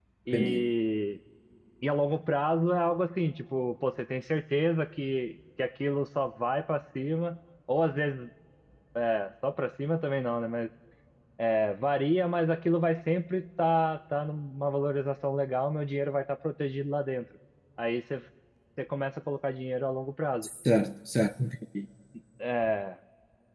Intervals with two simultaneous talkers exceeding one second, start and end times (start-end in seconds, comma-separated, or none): none